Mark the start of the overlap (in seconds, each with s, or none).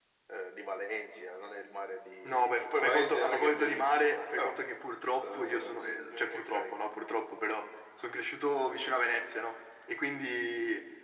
2.2 s